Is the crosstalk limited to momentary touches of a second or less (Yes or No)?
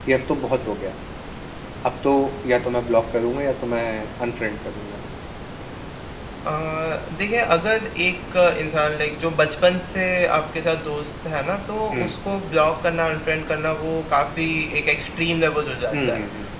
Yes